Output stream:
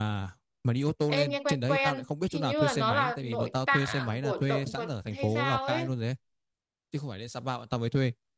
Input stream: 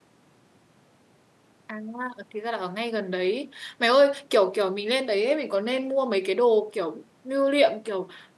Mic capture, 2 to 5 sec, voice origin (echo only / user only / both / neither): user only